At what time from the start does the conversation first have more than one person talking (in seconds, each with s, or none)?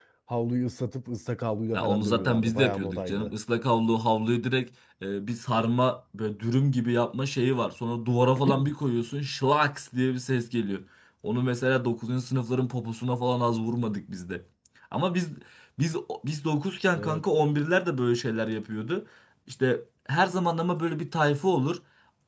1.7 s